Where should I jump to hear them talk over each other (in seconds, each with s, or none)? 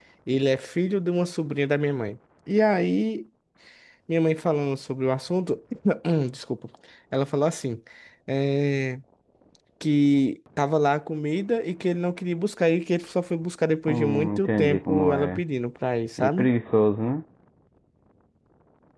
13.9 s